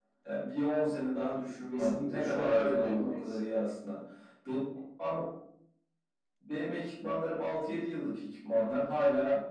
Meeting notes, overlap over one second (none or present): present